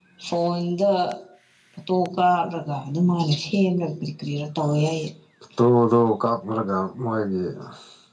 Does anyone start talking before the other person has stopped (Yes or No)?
No